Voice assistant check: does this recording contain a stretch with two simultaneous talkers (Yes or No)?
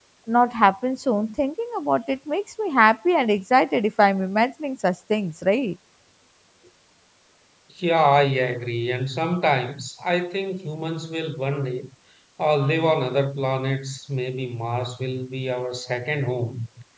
No